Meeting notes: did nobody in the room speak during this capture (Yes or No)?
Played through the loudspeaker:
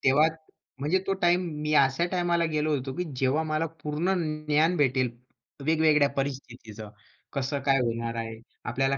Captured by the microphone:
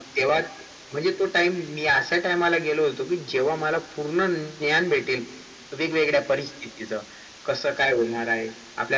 Yes